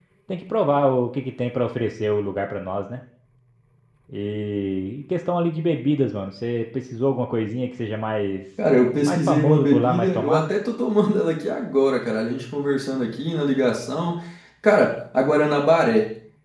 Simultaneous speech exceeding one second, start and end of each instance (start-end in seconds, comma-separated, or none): 9.0-10.5